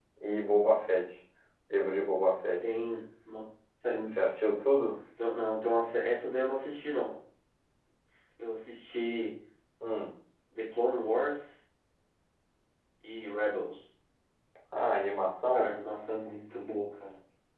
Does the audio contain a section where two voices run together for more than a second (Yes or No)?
No